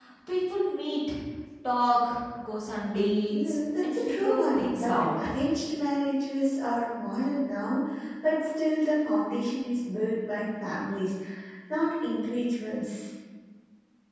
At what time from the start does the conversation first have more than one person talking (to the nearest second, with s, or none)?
3 s